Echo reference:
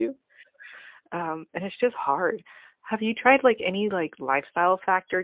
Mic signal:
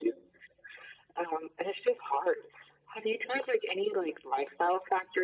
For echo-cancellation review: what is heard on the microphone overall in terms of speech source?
echo only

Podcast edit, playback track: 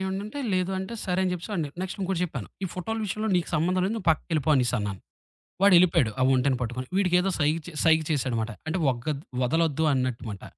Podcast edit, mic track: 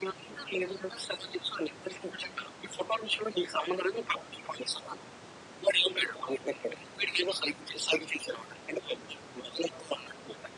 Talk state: echo only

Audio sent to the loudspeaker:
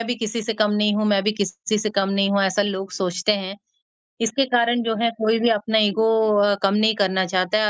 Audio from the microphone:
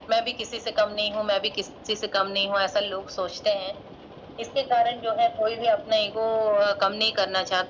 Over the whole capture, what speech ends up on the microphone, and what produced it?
echo only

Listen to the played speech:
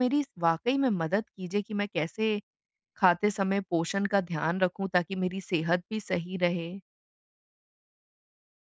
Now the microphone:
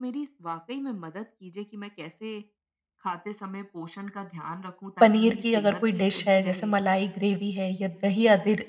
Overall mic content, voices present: both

